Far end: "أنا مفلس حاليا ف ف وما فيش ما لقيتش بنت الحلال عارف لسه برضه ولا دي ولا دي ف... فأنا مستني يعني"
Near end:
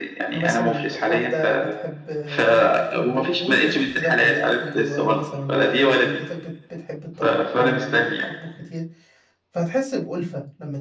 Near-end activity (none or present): present